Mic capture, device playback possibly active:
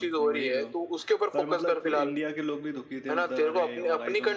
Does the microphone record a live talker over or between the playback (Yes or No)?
Yes